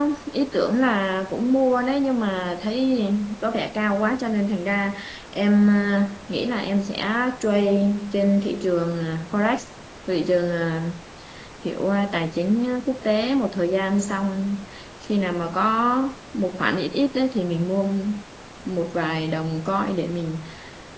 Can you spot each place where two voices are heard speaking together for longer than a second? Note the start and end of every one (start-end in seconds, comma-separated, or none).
none